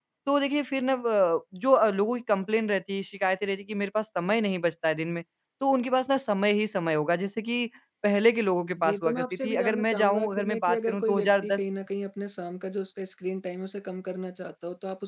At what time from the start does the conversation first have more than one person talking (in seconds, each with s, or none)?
8.8 s